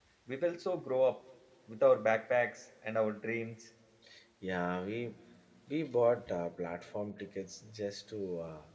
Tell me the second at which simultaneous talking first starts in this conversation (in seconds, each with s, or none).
none